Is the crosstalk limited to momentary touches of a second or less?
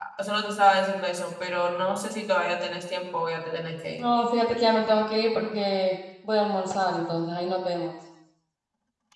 Yes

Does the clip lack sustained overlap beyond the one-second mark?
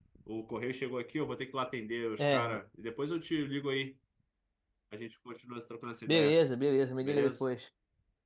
Yes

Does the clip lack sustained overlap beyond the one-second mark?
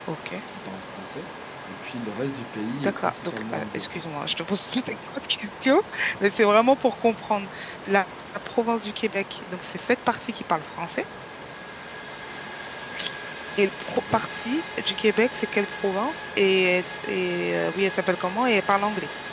No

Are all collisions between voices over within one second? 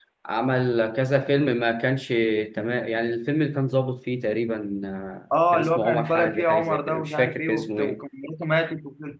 No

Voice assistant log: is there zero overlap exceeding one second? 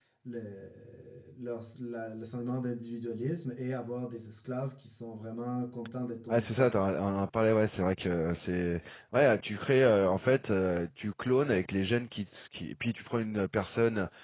Yes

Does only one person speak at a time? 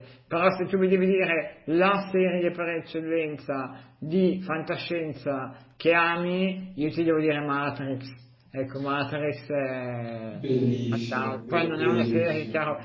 No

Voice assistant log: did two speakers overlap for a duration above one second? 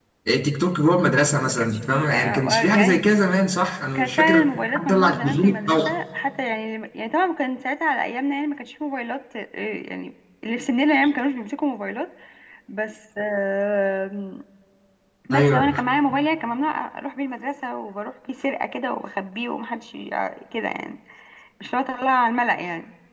Yes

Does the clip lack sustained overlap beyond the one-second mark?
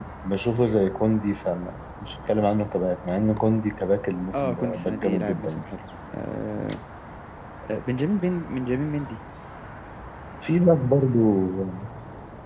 No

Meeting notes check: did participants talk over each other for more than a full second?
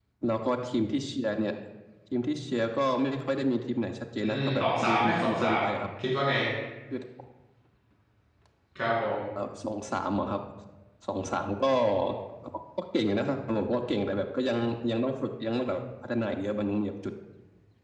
Yes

